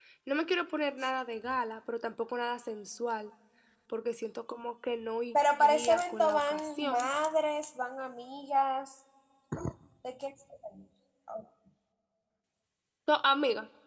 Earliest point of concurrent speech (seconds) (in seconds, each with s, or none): 5.6 s